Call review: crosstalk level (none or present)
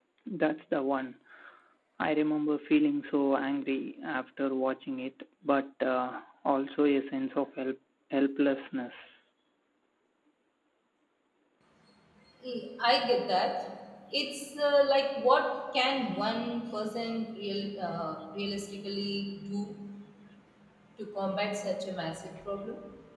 none